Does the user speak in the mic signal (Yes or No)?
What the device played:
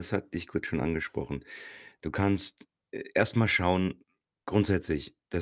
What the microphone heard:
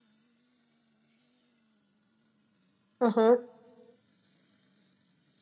Yes